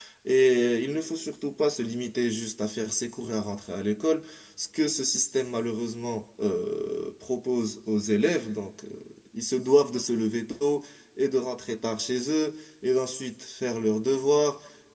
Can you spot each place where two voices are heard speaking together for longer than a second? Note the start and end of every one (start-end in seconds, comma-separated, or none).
none